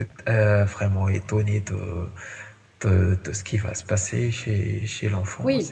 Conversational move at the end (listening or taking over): taking over